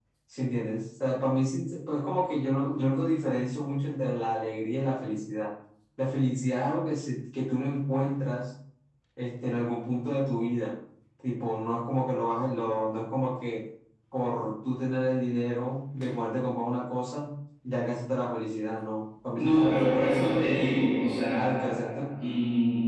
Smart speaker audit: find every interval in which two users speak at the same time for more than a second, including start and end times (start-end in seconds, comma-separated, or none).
19.4-20.8